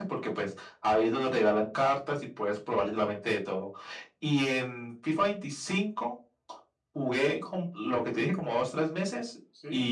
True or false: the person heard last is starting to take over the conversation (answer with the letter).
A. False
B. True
A